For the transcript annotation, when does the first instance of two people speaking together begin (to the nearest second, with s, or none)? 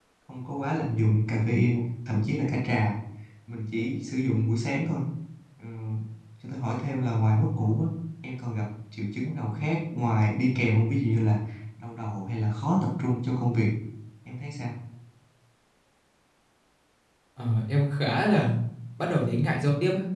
none